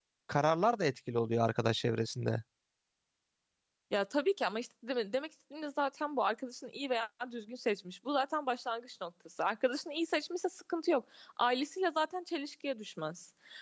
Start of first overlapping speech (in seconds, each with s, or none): none